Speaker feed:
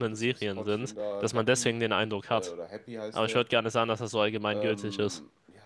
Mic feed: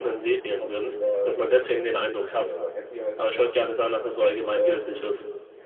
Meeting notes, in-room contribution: none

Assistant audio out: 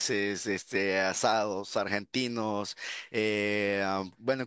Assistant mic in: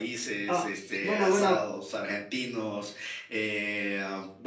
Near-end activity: present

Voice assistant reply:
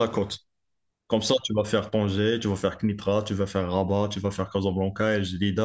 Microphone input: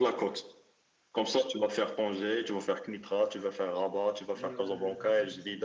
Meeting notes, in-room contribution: present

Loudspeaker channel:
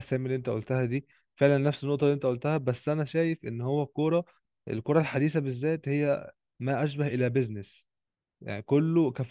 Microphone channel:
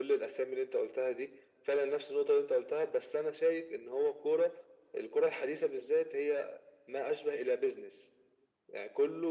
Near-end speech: none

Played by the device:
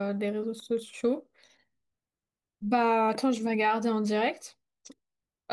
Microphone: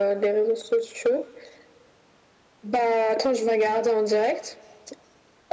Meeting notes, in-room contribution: none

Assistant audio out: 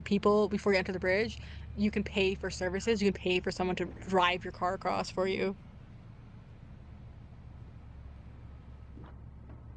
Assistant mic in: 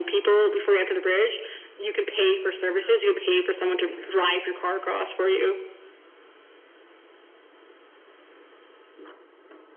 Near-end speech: none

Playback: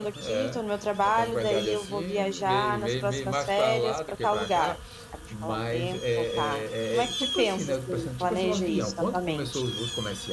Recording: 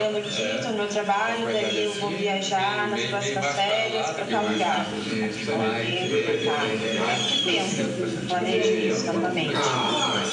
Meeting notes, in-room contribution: present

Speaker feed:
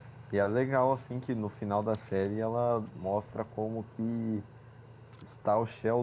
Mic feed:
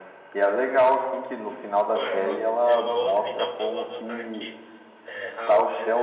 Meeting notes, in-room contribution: present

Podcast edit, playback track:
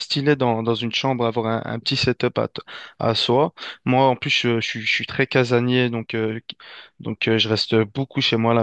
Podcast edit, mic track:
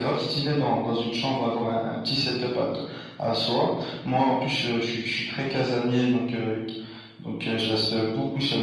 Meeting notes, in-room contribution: none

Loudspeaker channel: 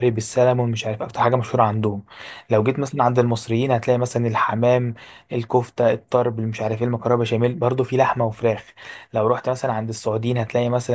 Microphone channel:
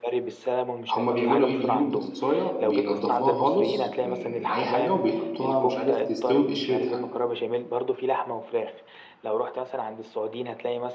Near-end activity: present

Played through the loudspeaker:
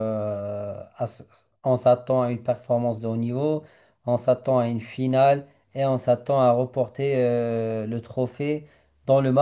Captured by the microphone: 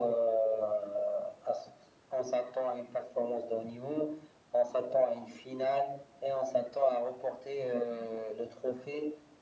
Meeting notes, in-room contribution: none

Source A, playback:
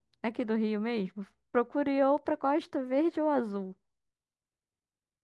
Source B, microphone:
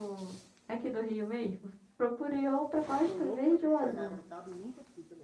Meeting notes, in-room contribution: present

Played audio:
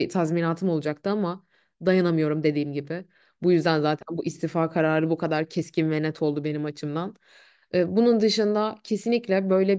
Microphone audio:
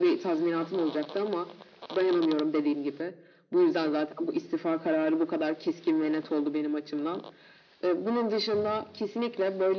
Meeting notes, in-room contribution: none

